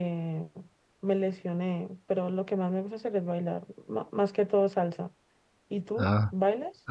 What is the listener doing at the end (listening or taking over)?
taking over